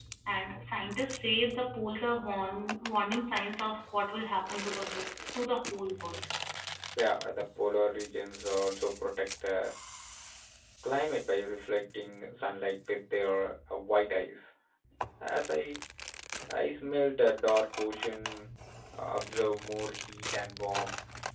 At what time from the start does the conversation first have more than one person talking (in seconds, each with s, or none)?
none